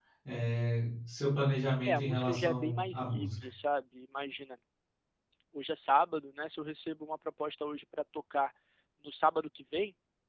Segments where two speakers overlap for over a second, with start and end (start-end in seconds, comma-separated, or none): 1.8-3.3